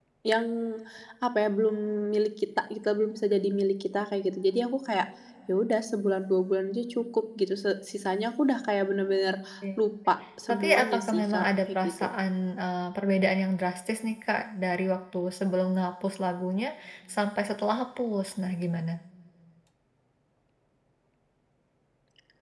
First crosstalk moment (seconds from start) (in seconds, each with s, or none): 10.5 s